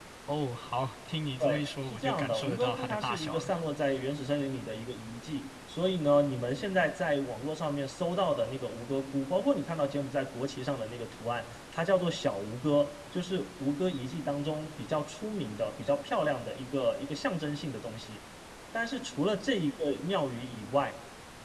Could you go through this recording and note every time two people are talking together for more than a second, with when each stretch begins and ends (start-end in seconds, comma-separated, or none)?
1.4-3.5